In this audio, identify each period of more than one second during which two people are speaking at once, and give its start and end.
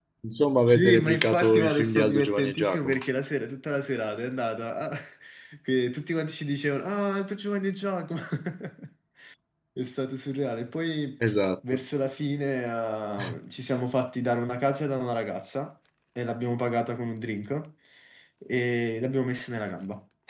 0.6-3.0

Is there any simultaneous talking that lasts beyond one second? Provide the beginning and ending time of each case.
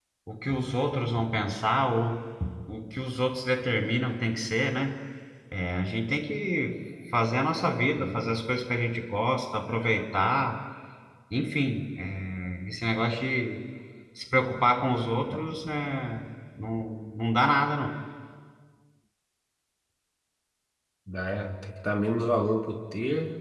none

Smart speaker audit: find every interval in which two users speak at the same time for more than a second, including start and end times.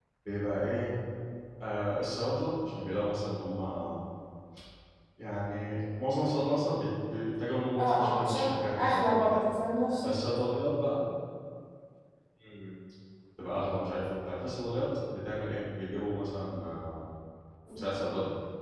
7.8-9.4

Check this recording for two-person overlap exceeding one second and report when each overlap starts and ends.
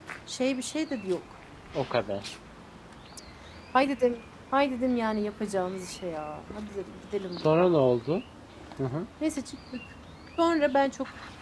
none

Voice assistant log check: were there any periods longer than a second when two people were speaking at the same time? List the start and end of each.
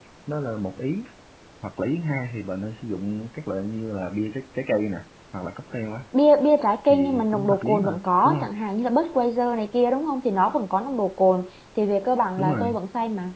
6.9-8.5

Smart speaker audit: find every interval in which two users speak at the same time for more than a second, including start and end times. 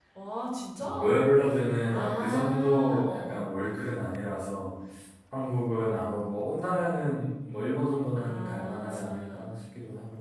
1.9-3.4, 8.2-9.5

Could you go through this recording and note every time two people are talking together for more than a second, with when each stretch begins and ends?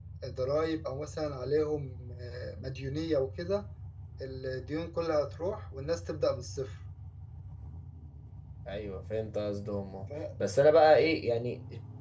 none

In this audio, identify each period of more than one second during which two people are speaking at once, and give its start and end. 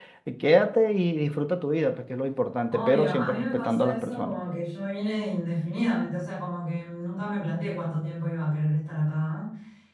2.7-4.3

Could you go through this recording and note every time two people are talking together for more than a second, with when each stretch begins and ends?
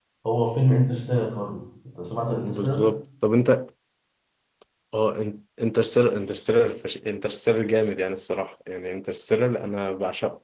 none

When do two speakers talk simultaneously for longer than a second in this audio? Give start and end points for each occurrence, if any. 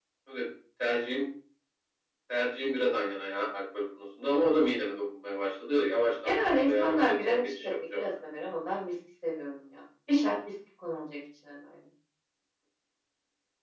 6.2-8.0

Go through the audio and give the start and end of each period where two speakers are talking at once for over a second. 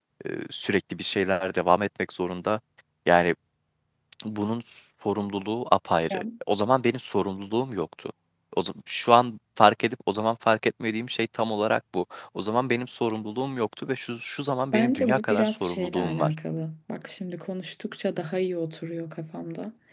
14.7-16.3

